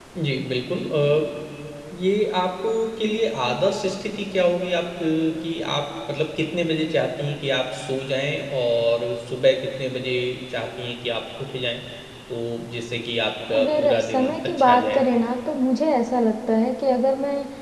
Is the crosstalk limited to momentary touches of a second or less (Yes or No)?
No